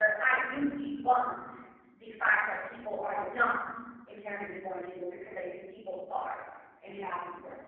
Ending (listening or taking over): taking over